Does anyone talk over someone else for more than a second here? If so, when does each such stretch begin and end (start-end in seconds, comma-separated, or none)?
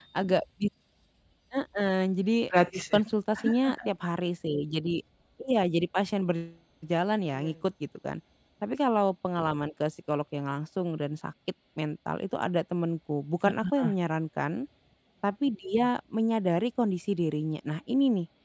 none